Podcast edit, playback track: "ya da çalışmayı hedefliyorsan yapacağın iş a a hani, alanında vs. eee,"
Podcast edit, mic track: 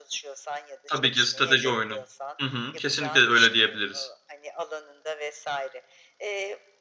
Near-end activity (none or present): present